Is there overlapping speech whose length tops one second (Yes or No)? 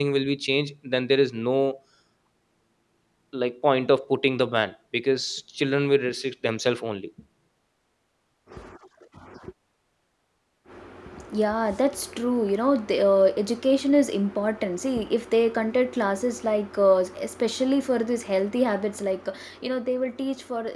No